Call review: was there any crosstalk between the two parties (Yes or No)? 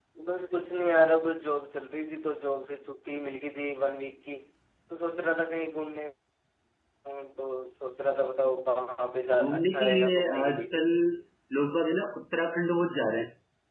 Yes